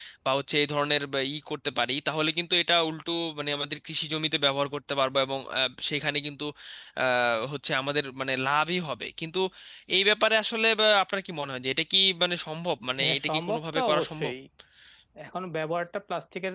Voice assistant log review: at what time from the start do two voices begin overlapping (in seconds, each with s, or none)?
13.0 s